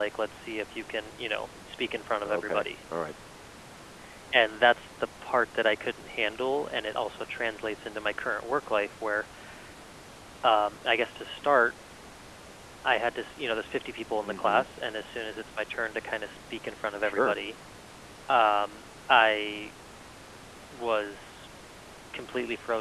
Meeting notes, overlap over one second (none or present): none